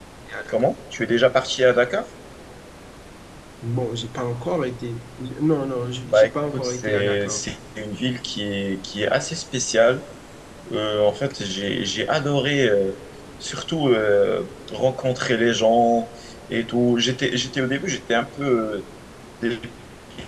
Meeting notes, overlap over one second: present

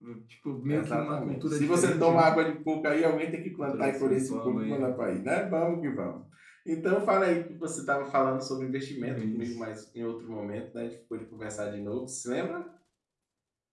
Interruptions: present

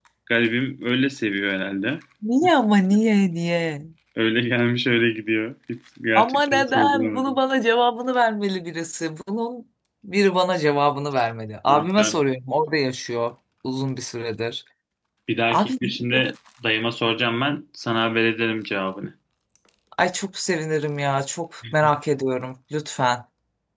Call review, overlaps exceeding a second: present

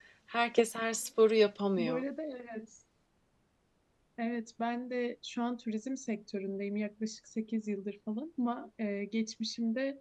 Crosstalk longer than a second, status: none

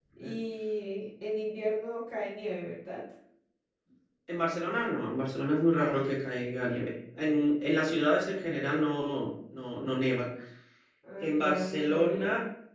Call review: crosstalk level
present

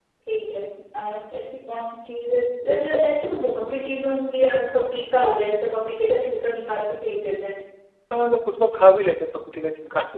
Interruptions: none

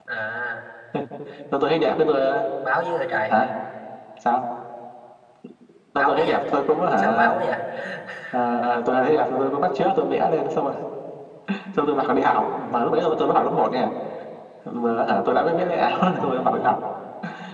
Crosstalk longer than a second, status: none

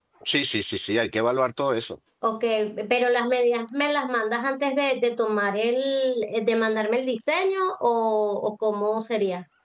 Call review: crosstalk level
none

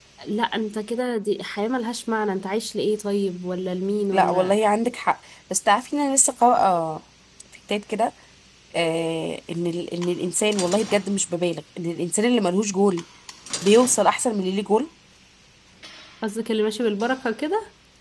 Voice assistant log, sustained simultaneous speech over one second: none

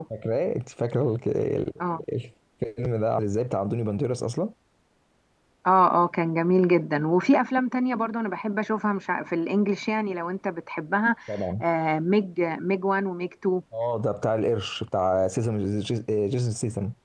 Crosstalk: none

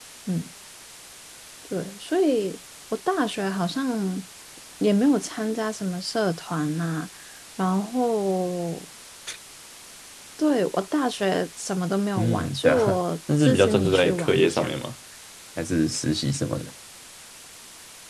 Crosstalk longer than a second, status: present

